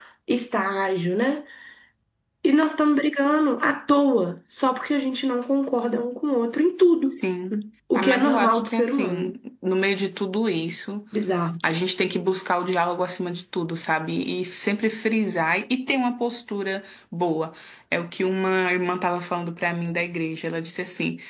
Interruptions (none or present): present